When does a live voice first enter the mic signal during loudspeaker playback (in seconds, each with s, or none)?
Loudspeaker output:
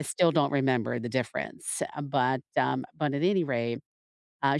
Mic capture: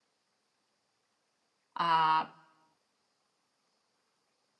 1.8 s